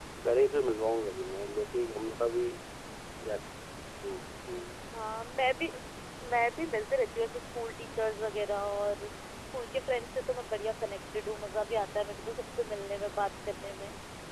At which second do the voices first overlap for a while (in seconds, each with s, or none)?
none